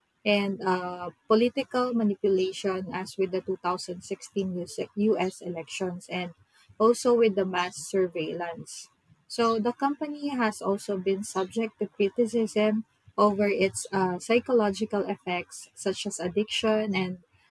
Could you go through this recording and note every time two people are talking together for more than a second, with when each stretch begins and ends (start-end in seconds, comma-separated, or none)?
none